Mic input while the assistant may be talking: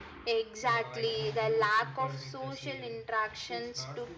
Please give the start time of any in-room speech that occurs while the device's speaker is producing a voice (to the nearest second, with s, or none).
1 s